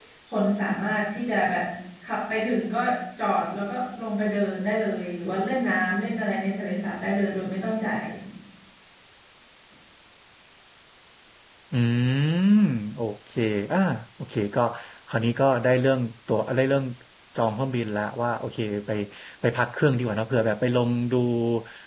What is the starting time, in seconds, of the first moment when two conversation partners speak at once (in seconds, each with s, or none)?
none